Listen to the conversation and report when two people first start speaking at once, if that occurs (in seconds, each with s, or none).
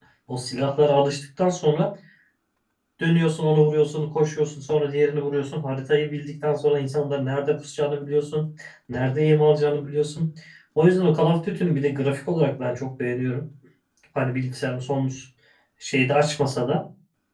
none